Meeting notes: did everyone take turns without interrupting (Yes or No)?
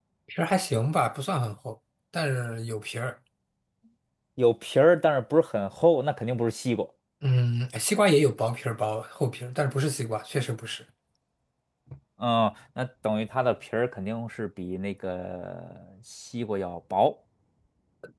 Yes